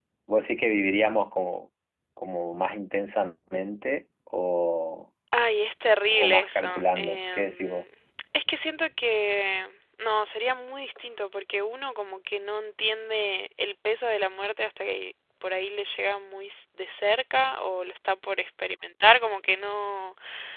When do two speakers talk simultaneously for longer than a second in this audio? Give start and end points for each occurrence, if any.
6.1-7.8

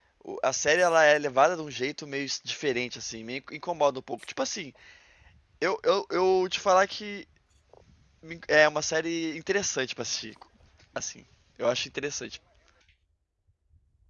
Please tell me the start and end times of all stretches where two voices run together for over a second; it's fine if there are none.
none

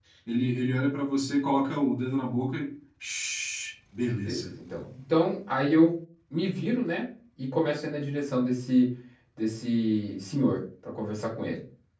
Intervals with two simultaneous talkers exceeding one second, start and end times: none

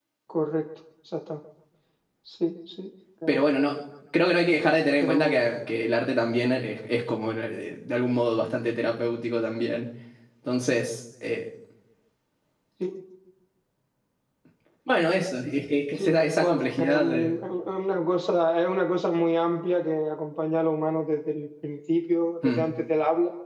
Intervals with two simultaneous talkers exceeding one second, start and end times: 15.9-17.4

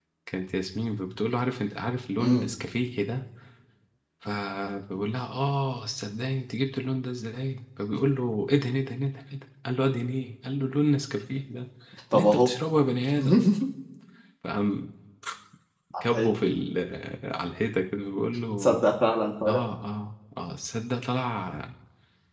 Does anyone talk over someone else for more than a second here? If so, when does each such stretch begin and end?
none

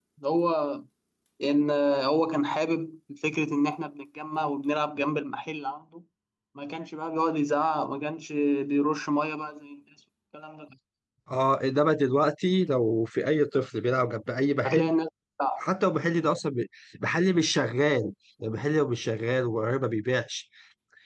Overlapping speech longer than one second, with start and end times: none

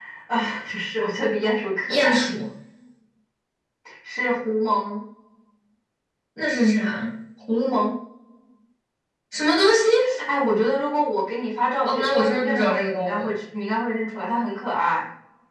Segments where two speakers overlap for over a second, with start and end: 11.8-13.3

